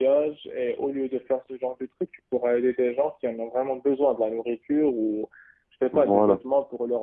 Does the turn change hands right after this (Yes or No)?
No